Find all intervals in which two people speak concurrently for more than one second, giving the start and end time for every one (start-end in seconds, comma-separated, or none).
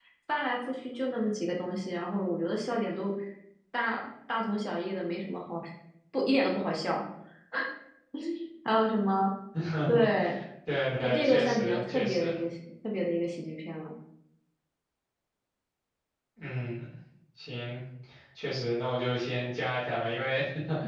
11.0-12.3